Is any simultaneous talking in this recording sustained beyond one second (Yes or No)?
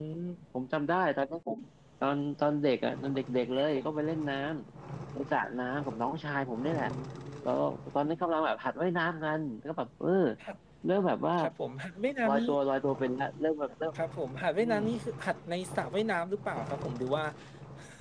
No